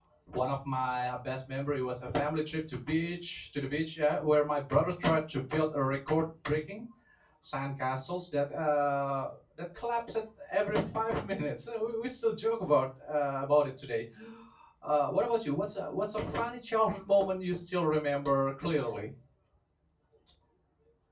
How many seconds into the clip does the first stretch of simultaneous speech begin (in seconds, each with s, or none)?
none